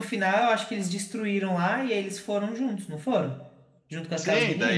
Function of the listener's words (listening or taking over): taking over